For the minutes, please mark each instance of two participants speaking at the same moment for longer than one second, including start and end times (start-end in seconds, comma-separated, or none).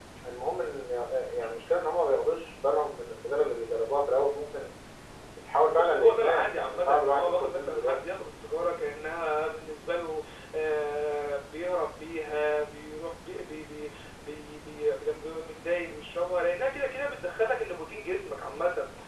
5.7-8.0